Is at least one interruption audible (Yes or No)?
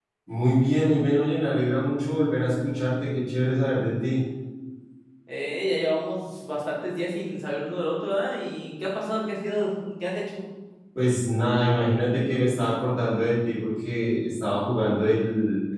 No